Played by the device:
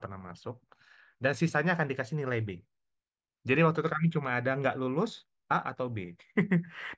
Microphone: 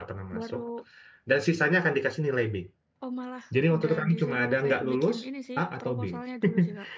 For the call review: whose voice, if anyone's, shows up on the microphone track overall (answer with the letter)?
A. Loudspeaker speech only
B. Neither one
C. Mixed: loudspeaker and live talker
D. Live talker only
C